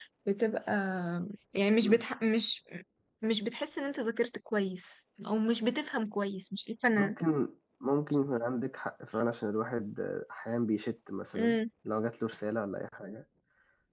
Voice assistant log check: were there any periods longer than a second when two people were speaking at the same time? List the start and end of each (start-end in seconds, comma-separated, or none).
none